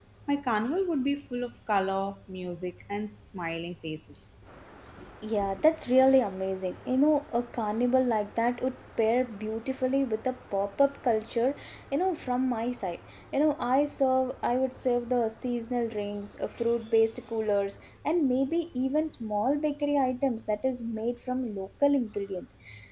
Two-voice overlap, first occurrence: none

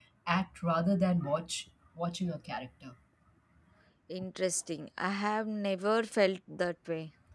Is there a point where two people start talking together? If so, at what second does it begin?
none

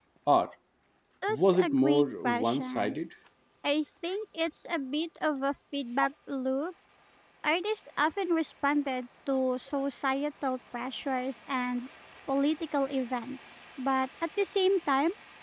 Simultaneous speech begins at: 1 s

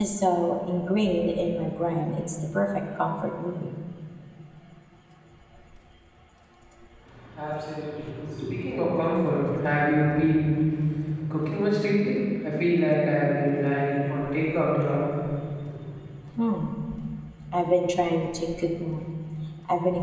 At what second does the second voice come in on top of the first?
none

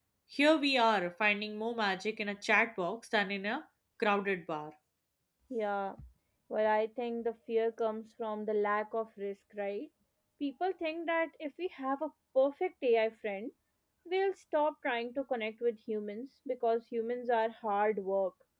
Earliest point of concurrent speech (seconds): none

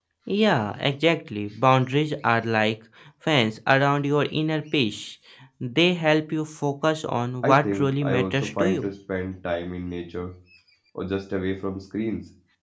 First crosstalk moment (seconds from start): 7 s

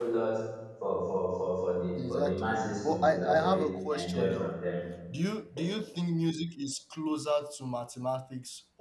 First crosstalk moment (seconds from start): 2 s

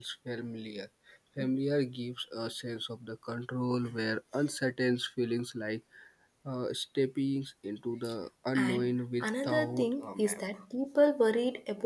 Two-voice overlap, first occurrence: 9 s

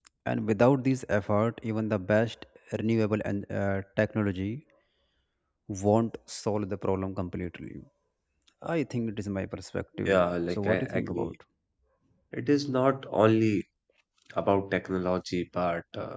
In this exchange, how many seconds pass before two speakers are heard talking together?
10 s

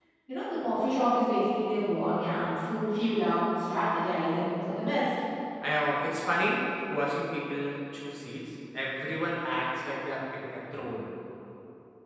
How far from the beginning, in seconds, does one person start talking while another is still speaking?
none

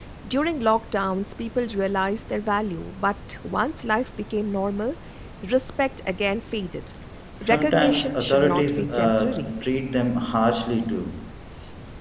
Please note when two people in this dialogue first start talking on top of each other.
7 s

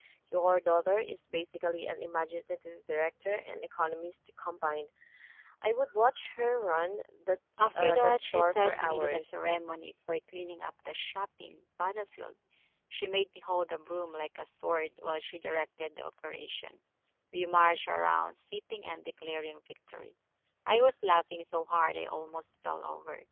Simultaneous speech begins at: 8 s

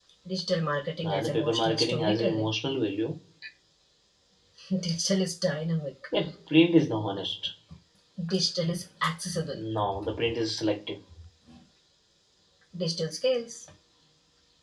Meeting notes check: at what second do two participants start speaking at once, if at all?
1 s

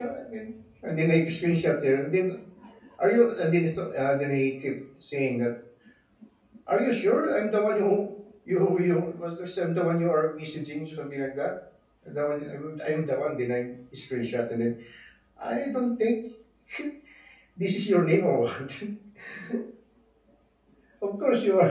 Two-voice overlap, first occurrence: none

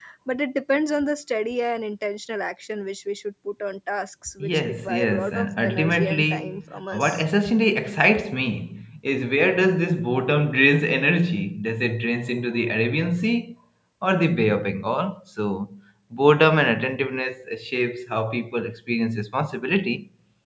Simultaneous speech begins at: 4 s

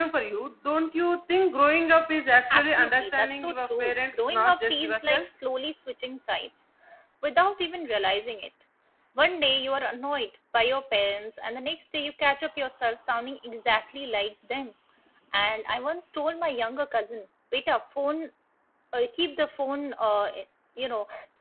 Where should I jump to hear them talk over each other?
3 s

